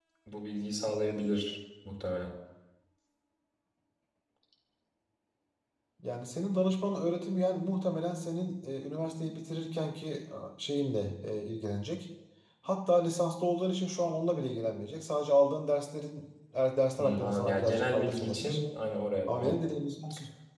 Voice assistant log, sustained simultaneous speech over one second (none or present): present